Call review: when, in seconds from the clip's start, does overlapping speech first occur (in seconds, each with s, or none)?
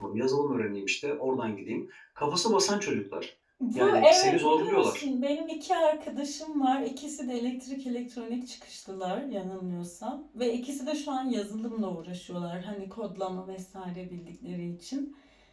3.8 s